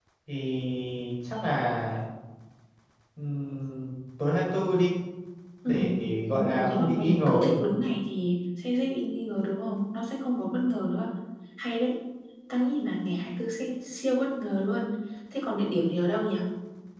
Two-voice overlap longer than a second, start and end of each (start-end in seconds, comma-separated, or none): 6.3-7.5